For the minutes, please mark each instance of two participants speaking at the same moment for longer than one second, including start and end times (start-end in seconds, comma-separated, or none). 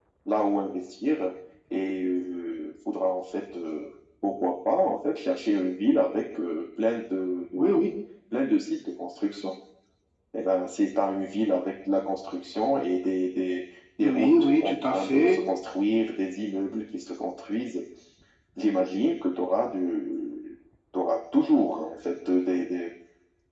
14.0-15.4